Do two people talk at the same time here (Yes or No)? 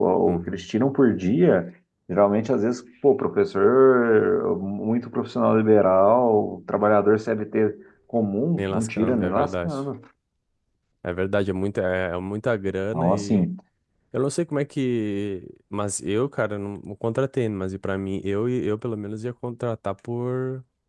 Yes